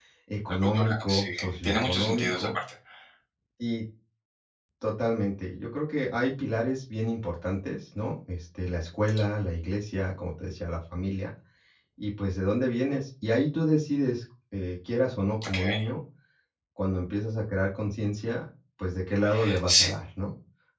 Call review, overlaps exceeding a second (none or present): present